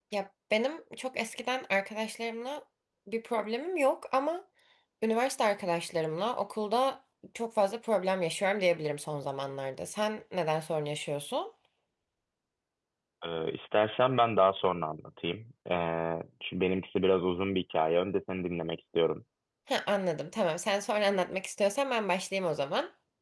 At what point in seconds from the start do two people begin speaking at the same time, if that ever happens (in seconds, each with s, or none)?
none